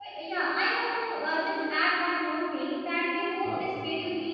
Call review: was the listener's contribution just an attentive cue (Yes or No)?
Yes